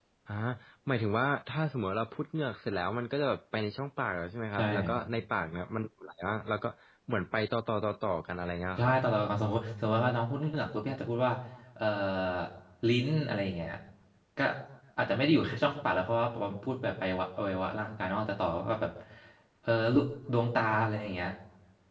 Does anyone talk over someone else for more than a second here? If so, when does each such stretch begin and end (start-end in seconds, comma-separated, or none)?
none